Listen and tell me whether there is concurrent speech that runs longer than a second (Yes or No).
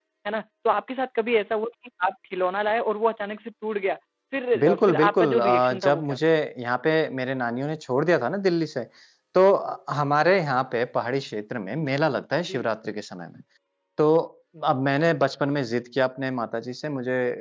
Yes